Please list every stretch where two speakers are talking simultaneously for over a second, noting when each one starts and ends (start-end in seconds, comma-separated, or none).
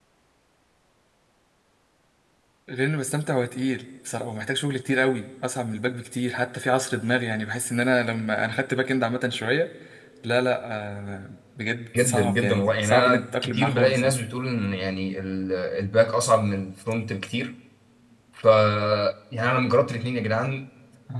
12.0-14.1